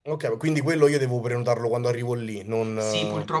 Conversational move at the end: taking over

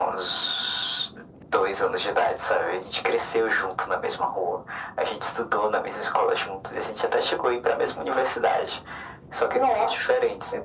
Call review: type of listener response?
listening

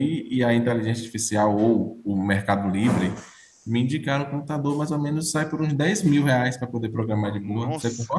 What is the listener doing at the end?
taking over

